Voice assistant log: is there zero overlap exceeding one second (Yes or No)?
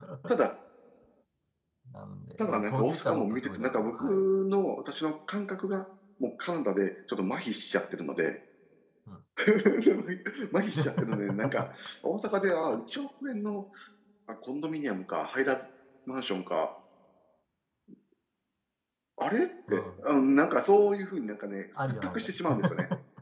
No